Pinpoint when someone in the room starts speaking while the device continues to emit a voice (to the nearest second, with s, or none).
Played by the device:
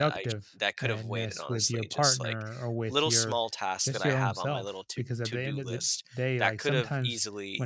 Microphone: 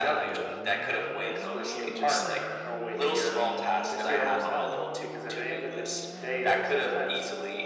none